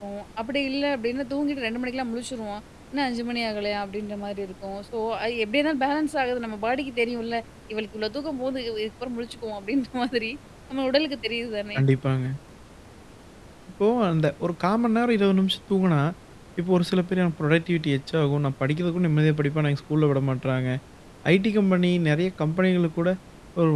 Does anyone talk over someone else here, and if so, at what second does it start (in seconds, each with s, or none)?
none